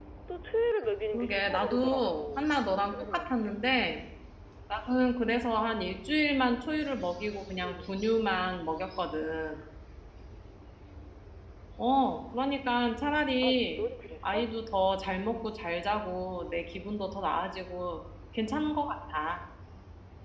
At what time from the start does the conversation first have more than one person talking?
1.1 s

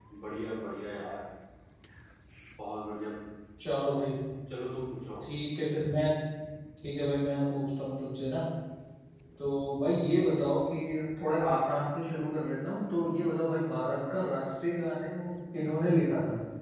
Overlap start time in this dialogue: none

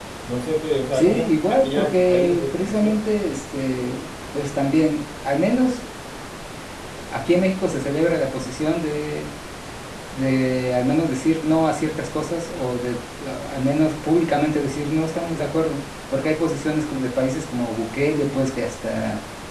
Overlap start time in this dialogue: 0.9 s

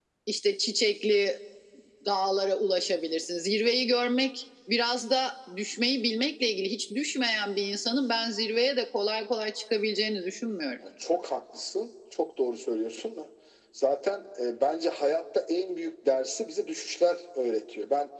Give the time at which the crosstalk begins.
none

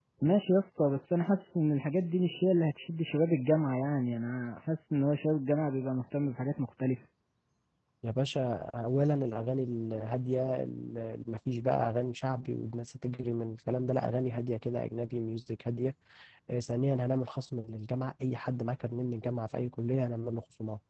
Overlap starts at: none

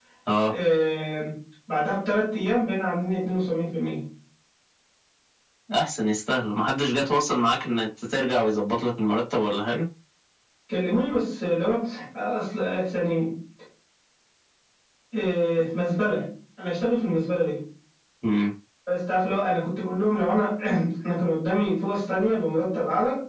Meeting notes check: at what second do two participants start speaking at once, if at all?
none

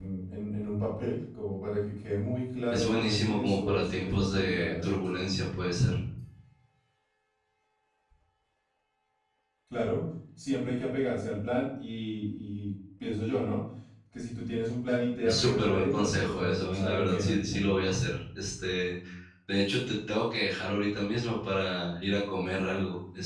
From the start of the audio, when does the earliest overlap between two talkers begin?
2.7 s

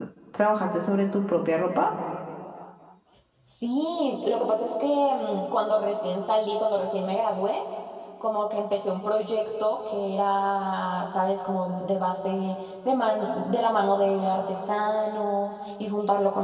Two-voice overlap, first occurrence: none

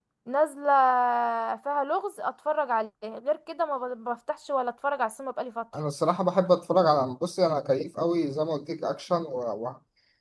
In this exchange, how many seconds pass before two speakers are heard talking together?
none

